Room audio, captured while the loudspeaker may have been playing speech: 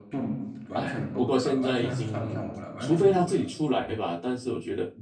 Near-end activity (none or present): present